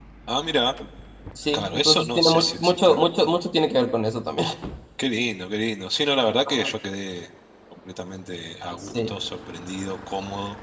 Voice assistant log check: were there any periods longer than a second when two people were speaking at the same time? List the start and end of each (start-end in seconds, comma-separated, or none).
1.5-3.0